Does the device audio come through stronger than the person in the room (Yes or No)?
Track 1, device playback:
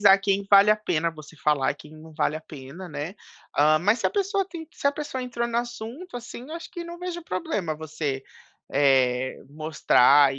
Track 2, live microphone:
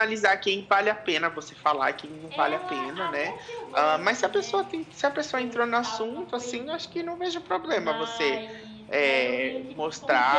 Yes